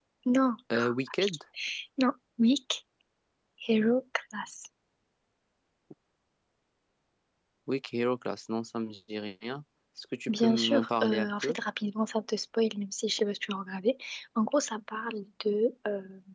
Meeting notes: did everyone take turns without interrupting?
No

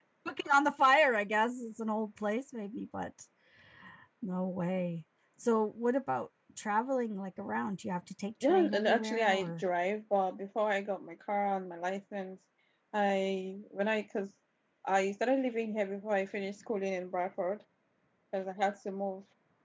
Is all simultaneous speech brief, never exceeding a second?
No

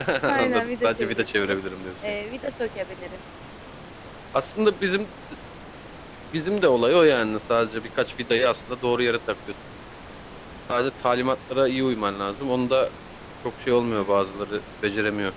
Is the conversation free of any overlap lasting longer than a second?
No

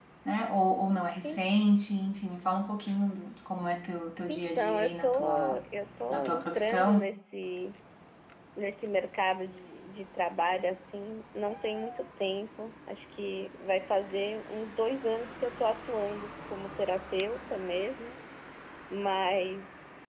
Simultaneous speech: Yes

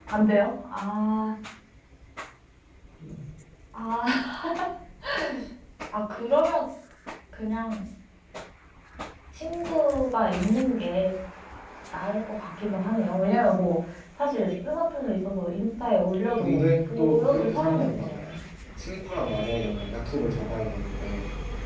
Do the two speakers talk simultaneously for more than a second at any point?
Yes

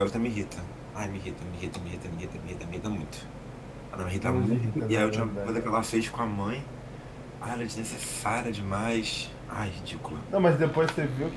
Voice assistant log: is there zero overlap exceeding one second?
No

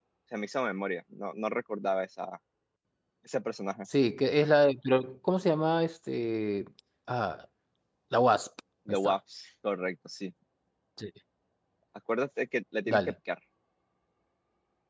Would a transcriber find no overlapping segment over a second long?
Yes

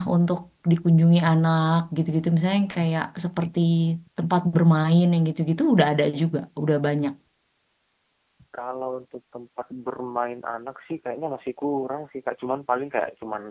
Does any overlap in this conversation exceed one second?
No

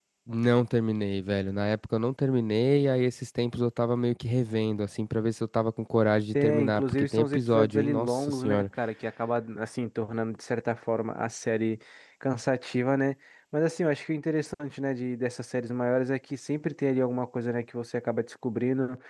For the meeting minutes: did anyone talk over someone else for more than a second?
Yes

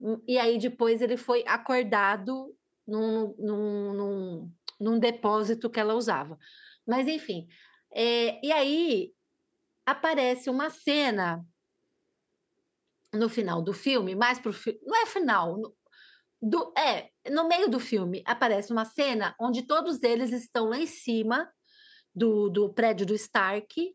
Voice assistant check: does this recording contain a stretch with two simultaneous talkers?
No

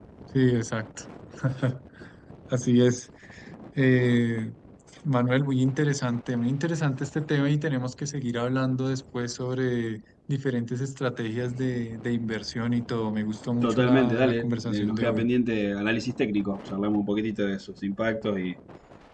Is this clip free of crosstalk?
No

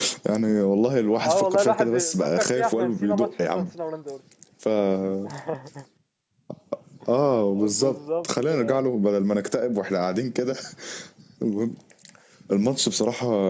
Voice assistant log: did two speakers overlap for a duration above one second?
Yes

